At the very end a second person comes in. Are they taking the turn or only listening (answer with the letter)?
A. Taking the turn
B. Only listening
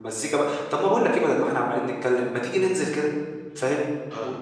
B